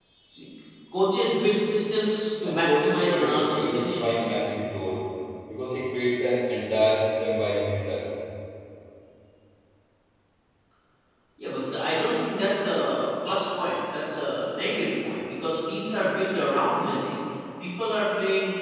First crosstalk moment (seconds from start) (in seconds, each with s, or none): 2.4 s